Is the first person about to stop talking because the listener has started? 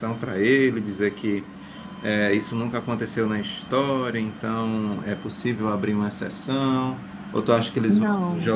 No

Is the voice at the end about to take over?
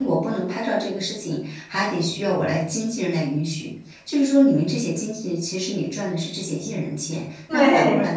No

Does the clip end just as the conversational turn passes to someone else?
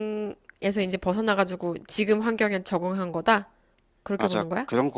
Yes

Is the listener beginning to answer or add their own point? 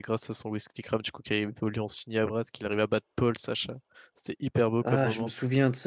Yes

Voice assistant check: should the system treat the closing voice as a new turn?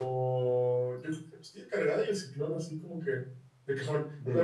No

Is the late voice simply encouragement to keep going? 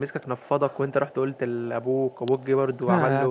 No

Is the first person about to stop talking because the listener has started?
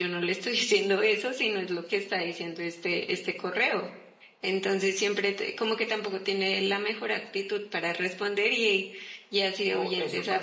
Yes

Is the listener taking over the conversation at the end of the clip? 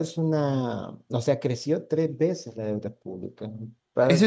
Yes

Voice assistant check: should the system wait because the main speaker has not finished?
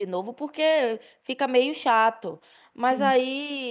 Yes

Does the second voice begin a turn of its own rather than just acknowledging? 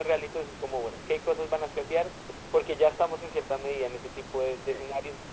No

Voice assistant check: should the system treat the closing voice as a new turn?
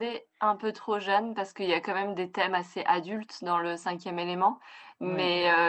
No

